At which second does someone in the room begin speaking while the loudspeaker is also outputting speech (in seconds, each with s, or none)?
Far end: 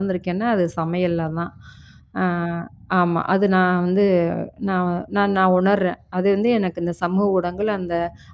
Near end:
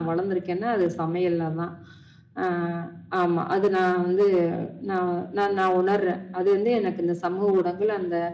none